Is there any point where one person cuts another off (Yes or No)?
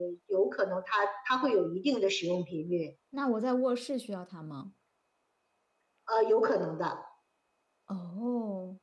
No